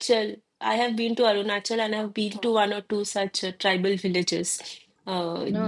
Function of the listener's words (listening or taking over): listening